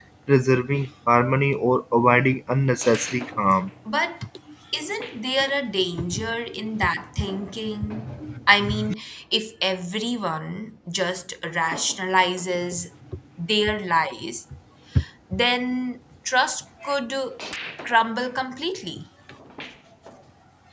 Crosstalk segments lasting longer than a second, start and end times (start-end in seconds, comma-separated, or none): none